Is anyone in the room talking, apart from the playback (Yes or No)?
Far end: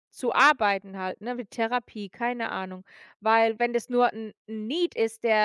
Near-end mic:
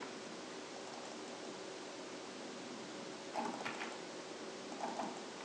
No